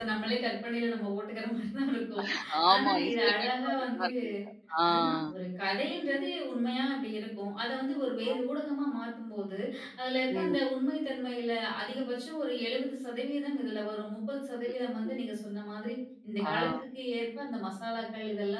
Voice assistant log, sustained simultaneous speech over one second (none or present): present